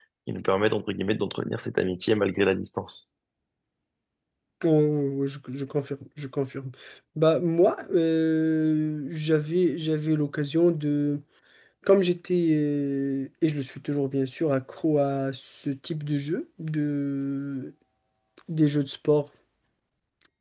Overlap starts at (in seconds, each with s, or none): none